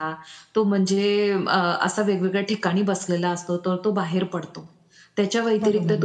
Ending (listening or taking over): listening